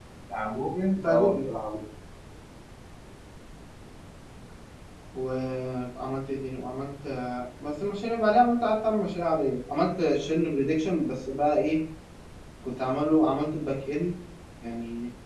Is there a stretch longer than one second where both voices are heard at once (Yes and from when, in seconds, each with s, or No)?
No